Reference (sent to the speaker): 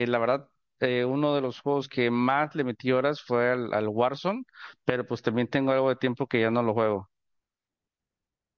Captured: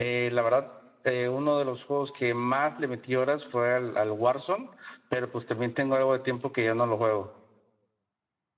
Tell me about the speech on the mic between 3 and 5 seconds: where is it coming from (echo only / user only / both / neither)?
echo only